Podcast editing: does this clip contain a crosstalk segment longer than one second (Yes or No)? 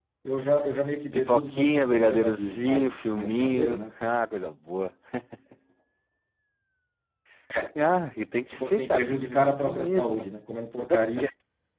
Yes